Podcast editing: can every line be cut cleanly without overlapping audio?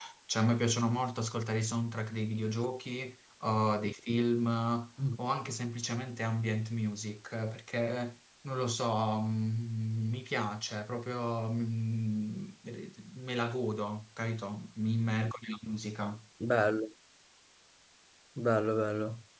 Yes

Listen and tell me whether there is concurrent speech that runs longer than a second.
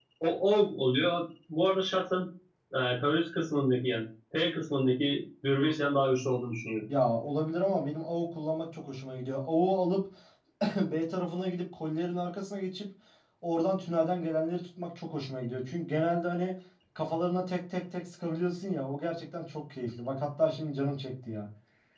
No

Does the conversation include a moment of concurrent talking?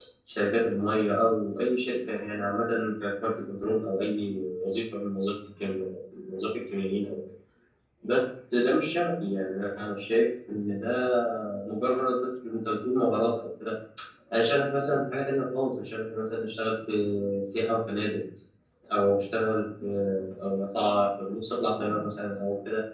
No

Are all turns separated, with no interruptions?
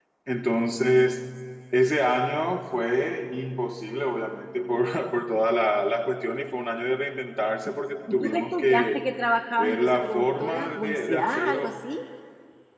No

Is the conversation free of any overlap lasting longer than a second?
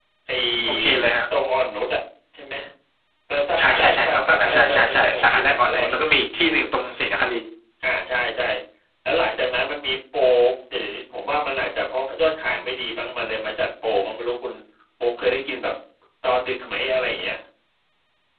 No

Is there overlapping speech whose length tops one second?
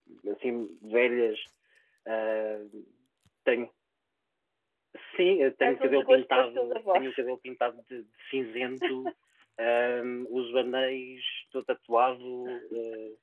Yes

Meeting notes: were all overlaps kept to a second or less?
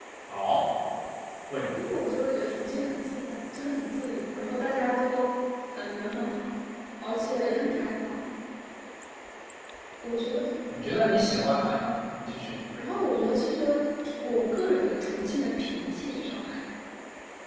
Yes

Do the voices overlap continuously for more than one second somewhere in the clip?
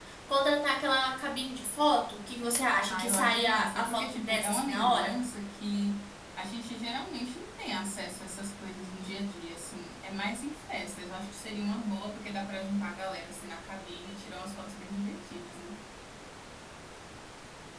Yes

